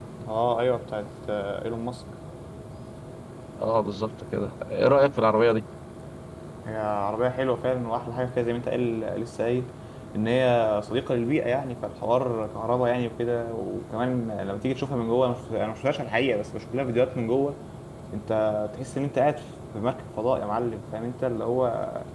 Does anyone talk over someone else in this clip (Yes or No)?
No